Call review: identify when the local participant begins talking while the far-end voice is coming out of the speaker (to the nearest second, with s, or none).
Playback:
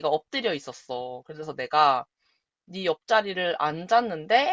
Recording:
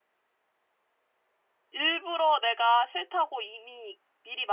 2 s